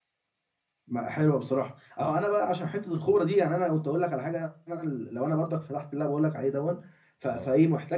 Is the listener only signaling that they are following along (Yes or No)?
Yes